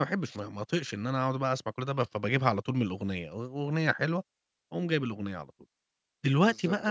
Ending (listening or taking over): listening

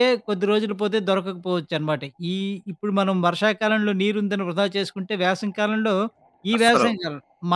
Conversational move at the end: listening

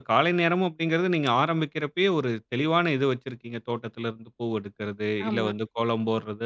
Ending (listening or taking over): listening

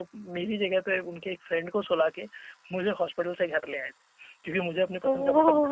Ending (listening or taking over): taking over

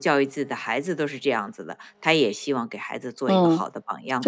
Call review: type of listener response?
taking over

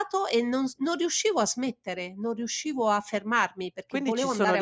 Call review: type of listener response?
taking over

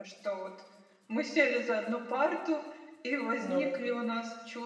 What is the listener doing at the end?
listening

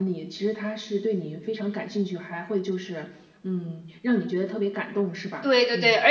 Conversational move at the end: taking over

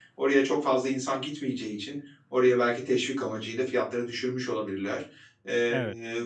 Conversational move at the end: listening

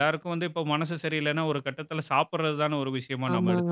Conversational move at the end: taking over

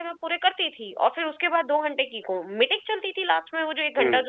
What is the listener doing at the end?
listening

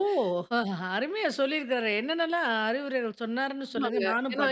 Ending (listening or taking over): taking over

